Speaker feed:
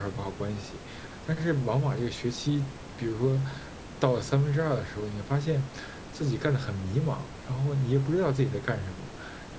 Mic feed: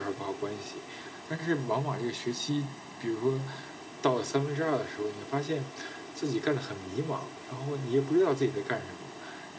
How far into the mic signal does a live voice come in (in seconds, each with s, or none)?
none